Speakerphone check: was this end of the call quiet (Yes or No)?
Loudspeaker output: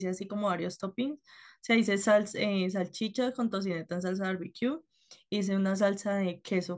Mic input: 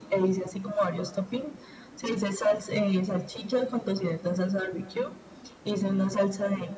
Yes